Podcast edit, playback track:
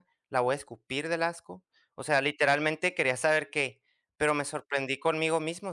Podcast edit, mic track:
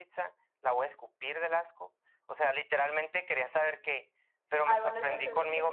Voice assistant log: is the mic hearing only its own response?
No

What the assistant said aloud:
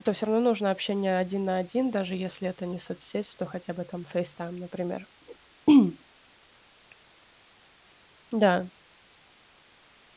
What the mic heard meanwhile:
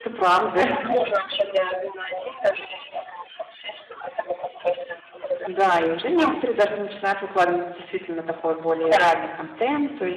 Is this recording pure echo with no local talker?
No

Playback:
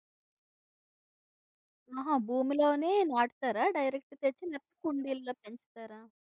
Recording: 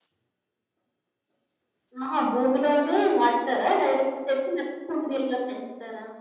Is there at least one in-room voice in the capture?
No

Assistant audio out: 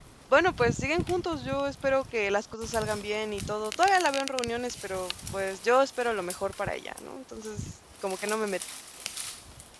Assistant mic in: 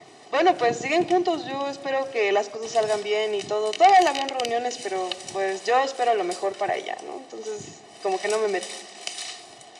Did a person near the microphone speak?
No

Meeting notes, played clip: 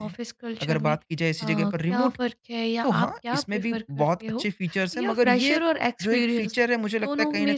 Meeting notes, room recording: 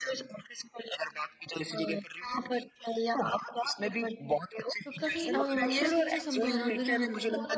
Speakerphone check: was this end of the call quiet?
No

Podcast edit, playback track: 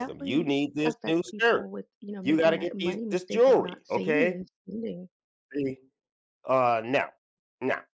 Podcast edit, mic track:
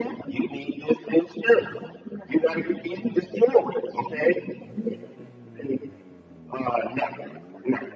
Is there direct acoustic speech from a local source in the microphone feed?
No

